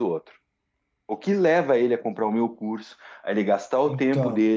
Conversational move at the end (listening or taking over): listening